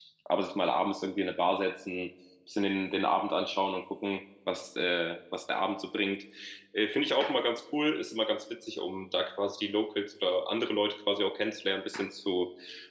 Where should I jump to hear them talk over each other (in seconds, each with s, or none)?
none